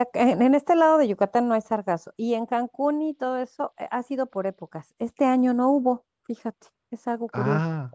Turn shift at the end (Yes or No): No